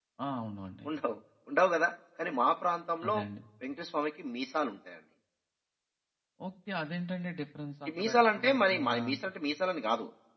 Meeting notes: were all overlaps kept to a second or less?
No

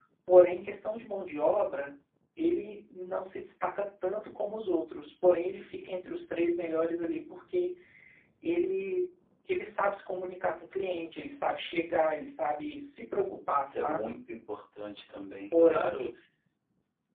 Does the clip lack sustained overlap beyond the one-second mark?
Yes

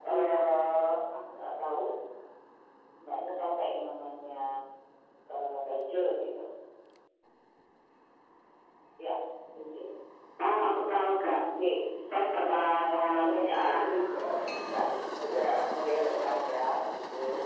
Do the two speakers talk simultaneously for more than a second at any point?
Yes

